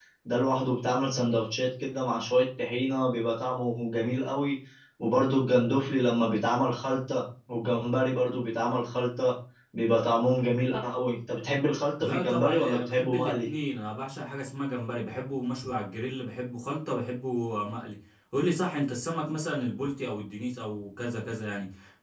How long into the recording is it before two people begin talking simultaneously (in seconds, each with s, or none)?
12.0 s